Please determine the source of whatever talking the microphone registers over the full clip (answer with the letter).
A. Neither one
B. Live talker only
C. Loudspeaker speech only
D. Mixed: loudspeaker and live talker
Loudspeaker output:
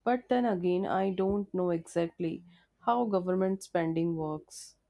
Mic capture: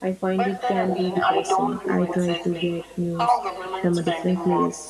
D